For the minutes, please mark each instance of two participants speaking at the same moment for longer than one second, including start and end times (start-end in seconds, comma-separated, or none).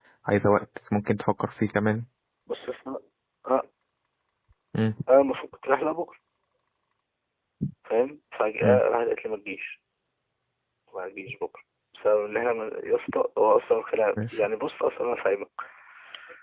none